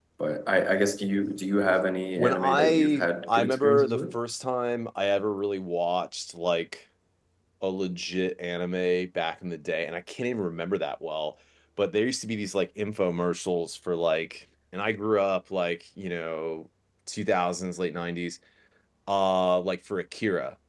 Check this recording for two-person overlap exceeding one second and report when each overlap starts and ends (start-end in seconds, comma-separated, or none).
2.2-4.0